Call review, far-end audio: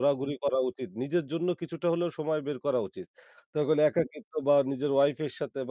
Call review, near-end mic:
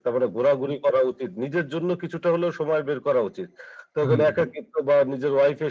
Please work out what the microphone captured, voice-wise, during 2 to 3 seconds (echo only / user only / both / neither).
echo only